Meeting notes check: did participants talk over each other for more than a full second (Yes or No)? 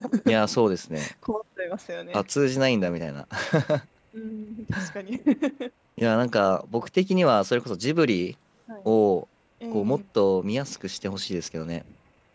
No